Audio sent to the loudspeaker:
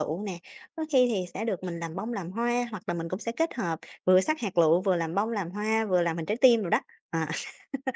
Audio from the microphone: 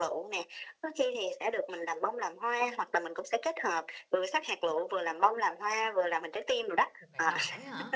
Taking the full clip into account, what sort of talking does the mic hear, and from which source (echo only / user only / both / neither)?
both